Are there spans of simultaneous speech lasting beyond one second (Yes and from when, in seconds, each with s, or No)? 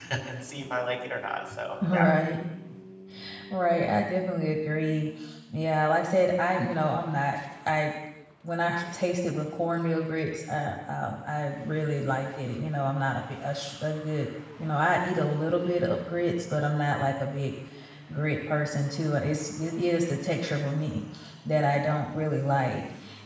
No